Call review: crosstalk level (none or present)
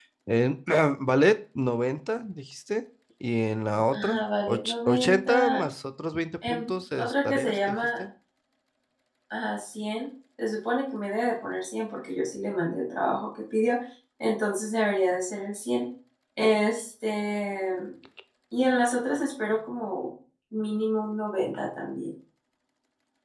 present